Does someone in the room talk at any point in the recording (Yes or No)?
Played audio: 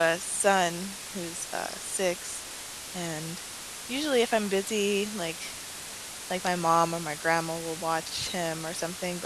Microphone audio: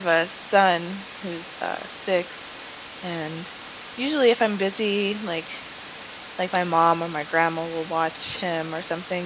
No